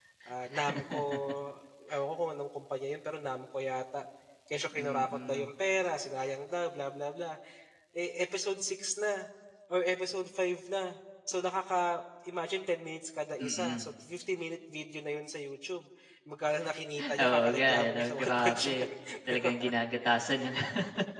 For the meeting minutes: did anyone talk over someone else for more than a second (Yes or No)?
Yes